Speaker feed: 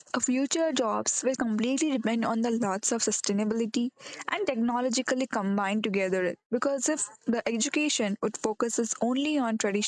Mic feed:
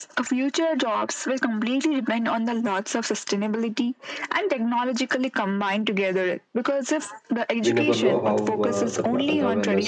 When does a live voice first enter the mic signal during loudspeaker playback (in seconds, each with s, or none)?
7.6 s